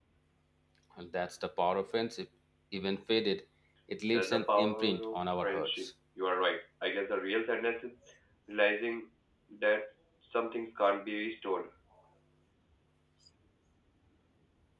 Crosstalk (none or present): present